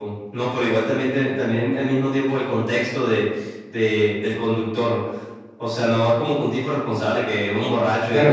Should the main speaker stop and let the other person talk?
Yes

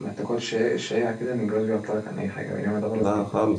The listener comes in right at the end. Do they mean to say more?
Yes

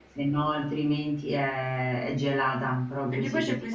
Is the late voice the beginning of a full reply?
Yes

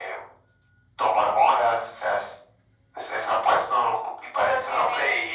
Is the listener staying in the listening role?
Yes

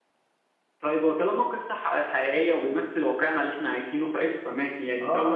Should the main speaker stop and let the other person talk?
Yes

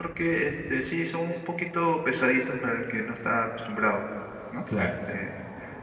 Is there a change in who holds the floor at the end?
No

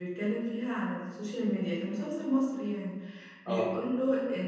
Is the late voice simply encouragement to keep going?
Yes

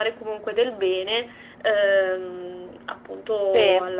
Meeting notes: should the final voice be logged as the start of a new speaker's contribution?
No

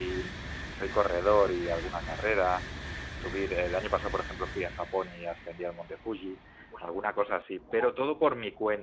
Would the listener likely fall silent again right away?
Yes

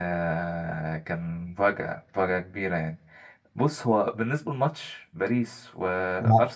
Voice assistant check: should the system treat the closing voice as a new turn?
No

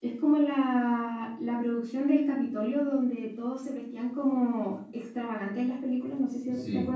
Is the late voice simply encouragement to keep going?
No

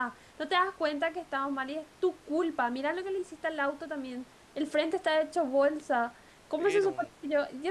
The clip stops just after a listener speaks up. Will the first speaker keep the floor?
Yes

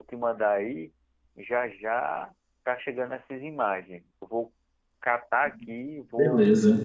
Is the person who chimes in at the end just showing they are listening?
Yes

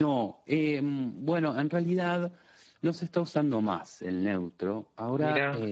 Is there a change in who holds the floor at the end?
No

